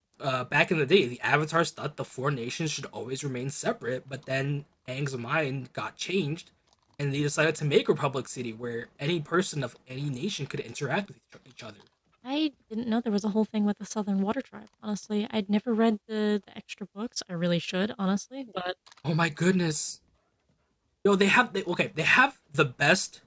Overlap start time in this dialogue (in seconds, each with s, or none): none